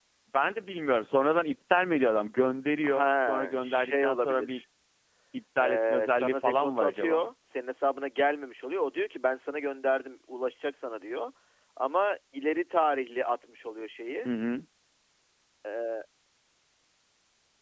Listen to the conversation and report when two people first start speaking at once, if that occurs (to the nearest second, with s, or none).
3 s